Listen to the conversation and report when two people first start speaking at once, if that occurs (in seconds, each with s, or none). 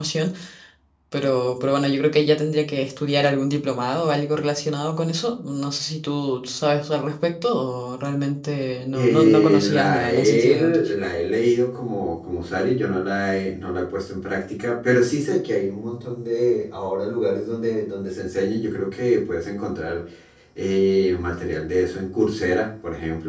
8.9 s